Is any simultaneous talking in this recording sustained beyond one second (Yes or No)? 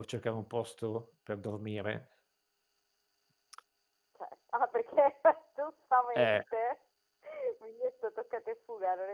No